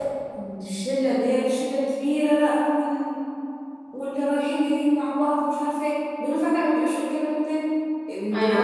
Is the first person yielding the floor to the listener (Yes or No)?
Yes